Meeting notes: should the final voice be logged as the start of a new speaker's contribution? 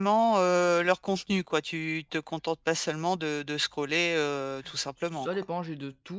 Yes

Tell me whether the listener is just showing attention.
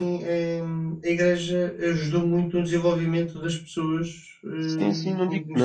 No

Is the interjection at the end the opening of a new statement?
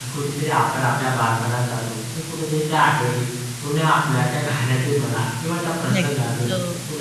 No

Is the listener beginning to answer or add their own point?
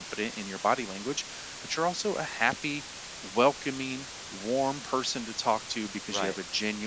No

